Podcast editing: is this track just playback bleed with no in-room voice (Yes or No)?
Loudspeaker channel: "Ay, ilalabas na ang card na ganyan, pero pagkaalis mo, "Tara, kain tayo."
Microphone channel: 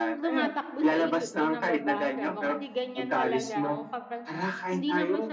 No